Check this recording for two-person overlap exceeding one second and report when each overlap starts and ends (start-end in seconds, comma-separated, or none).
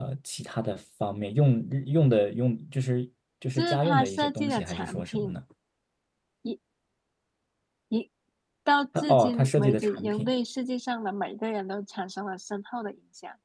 3.6-5.4, 9.0-10.3